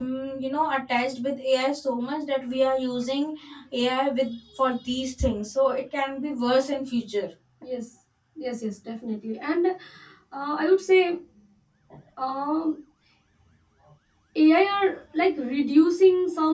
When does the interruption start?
none

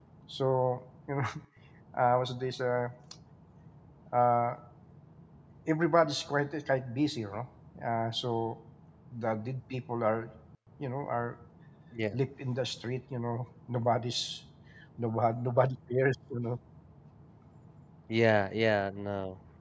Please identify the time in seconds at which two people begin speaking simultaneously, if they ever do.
none

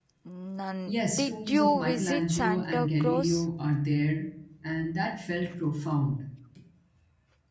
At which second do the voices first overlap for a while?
0.9 s

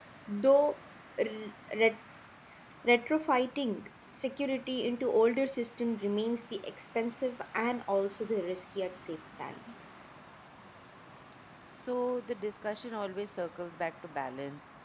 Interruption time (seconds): none

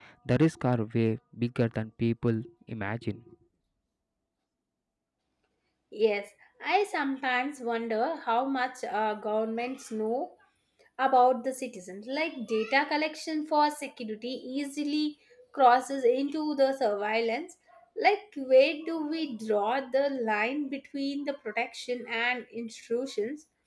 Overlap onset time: none

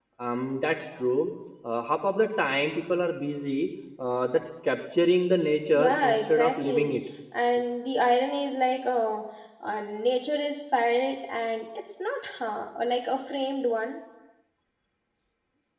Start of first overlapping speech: 5.7 s

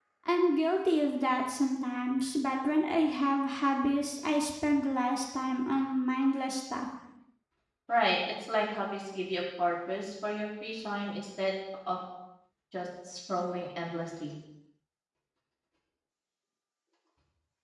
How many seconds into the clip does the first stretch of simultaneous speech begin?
none

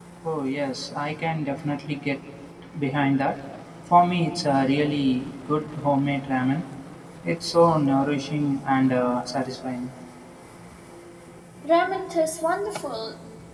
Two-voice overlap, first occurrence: none

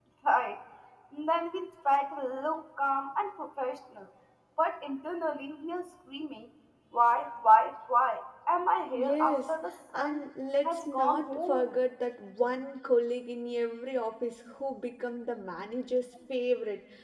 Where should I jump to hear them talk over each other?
8.9 s

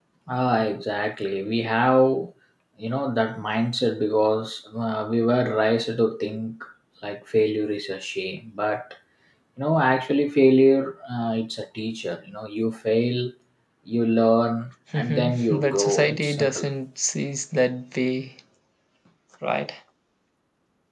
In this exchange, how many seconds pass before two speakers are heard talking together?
14.9 s

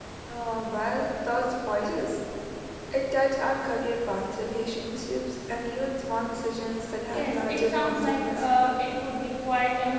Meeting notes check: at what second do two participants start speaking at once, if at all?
7.1 s

